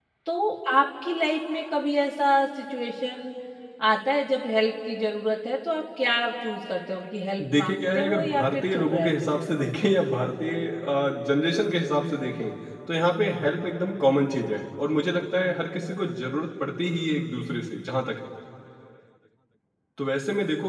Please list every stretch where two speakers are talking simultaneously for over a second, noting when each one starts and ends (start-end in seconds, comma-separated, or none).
7.5-9.4